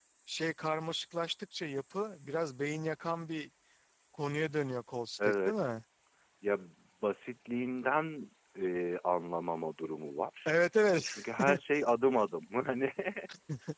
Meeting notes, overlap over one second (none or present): none